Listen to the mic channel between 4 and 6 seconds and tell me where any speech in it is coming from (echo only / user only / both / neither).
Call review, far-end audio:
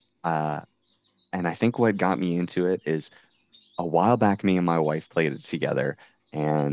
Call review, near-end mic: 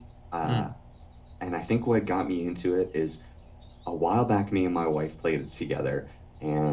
echo only